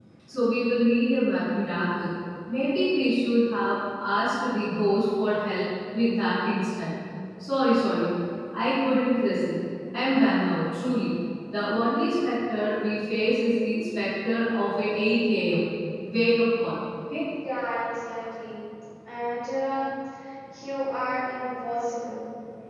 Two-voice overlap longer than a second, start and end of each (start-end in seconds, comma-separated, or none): none